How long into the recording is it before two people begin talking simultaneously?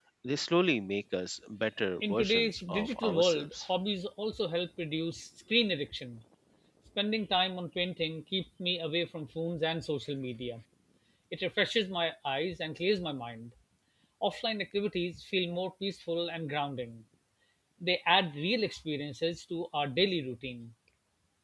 2.0 s

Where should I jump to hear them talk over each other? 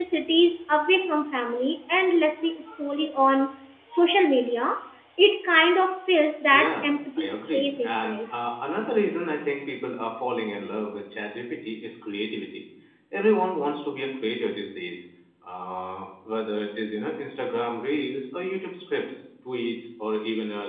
6.5 s

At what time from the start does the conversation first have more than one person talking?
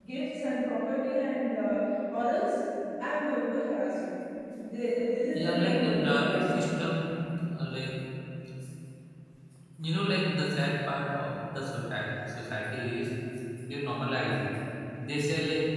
5.3 s

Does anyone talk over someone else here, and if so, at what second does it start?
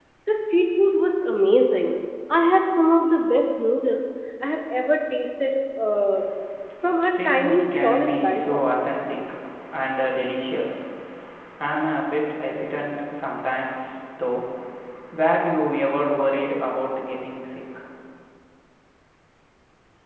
7.2 s

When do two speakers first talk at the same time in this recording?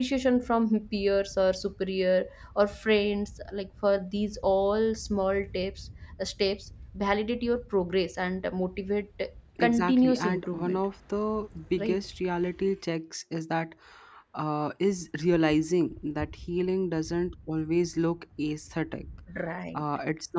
9.6 s

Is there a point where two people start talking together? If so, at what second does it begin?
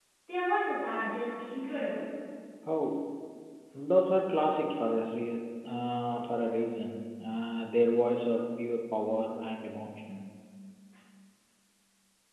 none

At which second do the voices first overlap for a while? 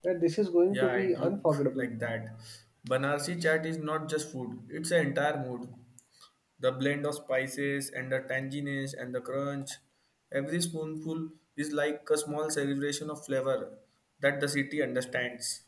0.7 s

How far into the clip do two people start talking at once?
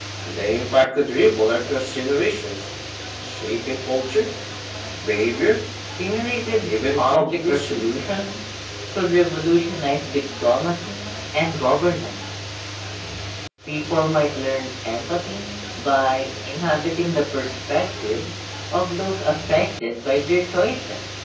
6.4 s

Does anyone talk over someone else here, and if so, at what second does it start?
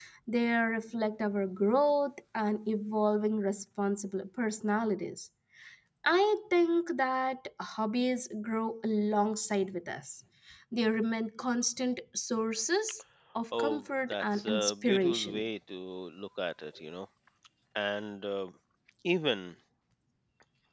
13.5 s

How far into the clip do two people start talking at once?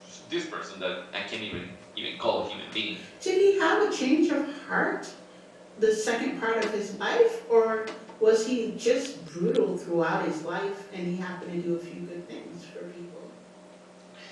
none

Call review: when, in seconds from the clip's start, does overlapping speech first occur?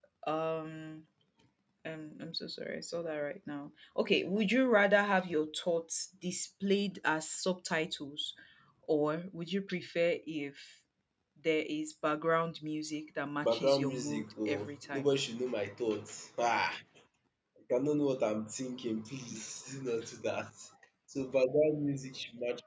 13.4 s

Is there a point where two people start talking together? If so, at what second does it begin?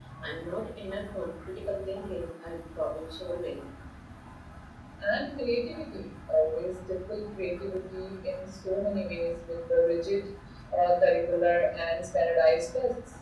none

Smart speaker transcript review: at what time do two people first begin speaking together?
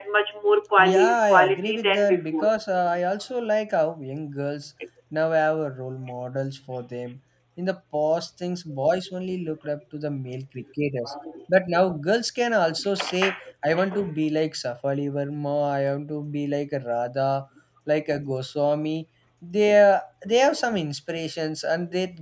0.8 s

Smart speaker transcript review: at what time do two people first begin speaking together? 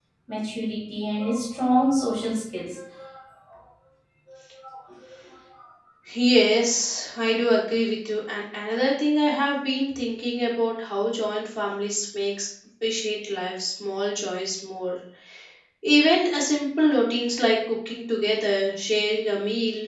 none

